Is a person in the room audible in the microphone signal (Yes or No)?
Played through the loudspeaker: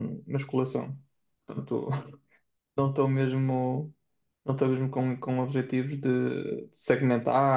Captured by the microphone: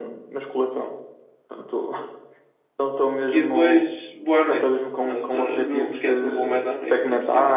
Yes